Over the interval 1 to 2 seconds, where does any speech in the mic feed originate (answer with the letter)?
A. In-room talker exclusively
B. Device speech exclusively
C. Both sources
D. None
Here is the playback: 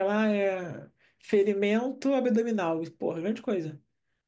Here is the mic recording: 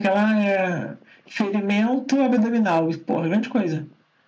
B